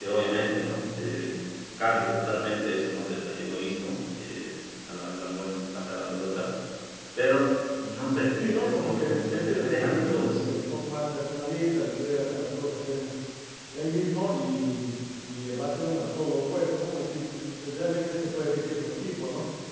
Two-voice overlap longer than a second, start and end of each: 8.4-10.4

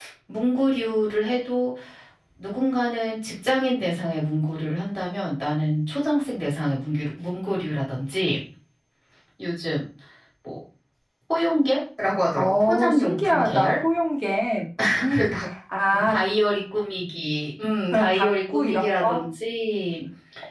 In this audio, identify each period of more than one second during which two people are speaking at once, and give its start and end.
12.4-13.8, 17.9-19.2

